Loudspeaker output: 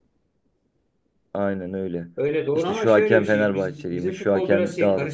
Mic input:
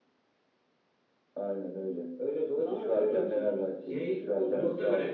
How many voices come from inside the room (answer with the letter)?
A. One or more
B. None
A